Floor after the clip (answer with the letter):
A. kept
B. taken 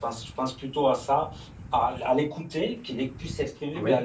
A